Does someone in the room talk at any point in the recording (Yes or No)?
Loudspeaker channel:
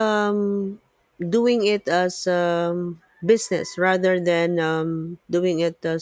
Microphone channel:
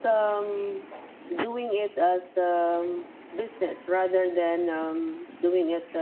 No